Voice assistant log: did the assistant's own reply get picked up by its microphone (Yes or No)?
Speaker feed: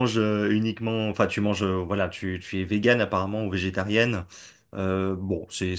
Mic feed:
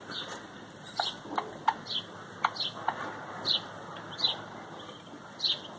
No